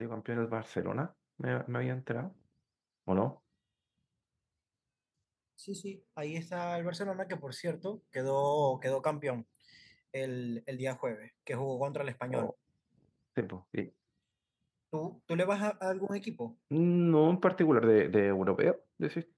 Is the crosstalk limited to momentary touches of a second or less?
Yes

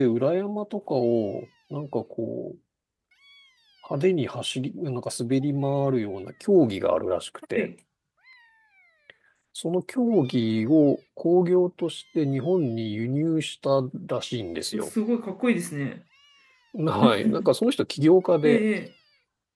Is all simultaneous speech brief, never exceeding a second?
Yes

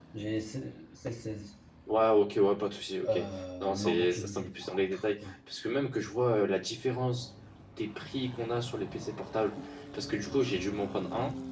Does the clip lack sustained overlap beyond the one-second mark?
No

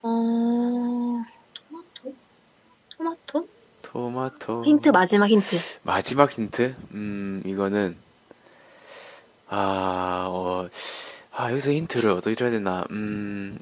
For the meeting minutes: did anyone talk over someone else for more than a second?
No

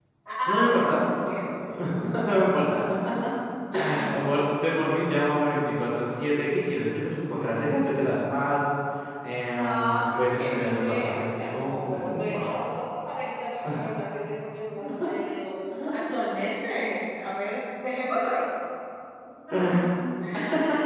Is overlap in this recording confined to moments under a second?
No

